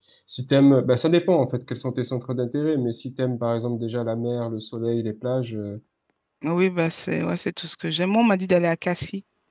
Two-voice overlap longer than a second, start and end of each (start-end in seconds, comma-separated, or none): none